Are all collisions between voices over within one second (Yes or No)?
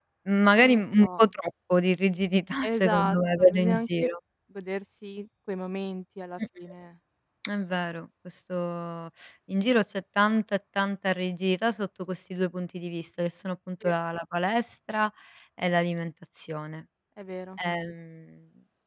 No